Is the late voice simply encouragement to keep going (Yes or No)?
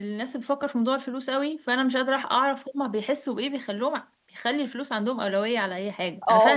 No